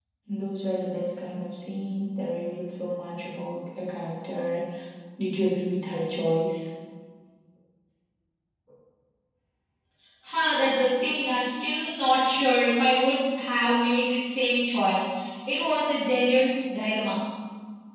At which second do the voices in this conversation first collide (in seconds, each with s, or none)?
none